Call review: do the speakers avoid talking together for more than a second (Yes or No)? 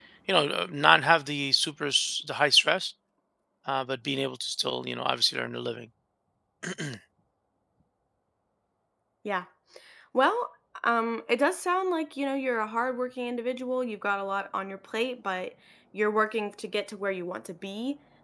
Yes